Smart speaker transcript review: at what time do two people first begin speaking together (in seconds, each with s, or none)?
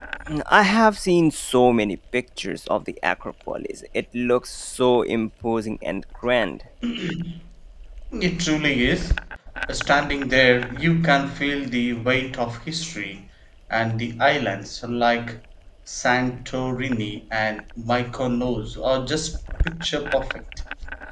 none